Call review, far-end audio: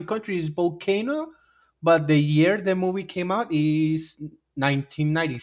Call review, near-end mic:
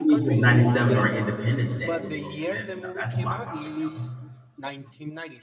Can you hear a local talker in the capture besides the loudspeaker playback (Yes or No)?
Yes